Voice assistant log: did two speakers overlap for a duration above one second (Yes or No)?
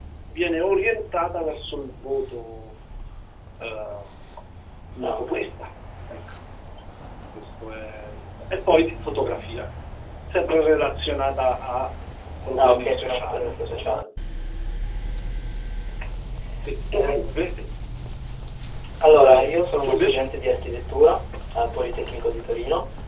Yes